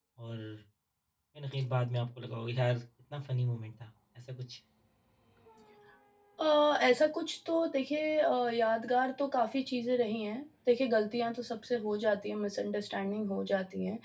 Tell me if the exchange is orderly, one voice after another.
Yes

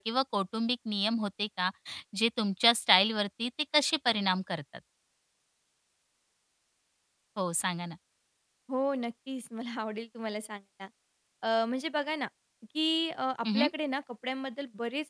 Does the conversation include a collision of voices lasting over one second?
No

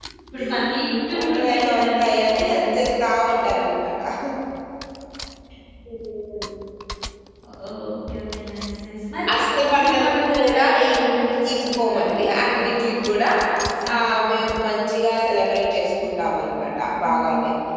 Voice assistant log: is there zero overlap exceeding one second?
No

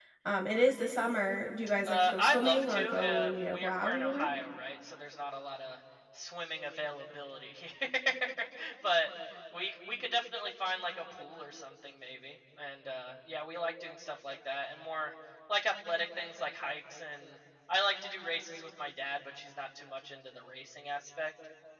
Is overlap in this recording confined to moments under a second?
No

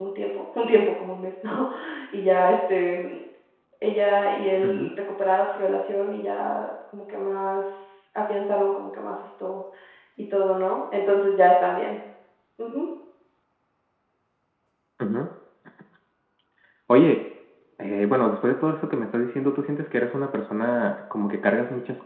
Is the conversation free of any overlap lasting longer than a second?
Yes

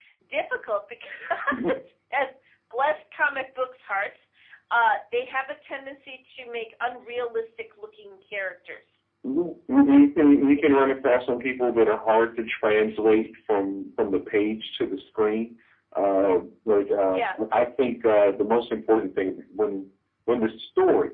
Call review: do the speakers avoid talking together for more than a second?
Yes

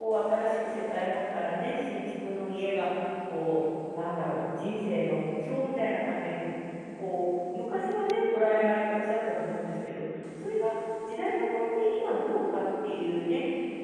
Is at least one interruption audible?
No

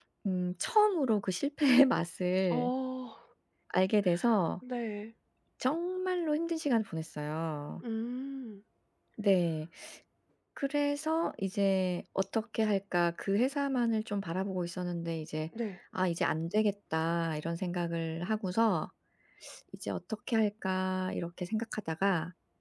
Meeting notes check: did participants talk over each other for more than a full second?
No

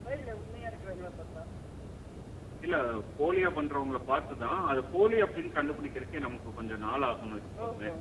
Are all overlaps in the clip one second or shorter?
Yes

